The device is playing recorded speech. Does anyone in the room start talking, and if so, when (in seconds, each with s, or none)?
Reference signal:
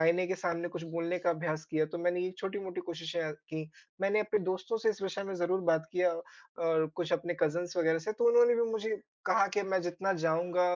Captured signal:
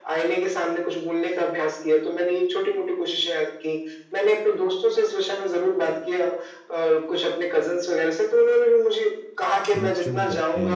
9.7 s